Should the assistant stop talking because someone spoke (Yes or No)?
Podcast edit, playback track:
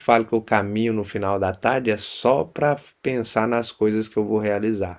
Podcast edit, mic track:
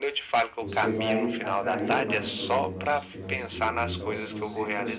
Yes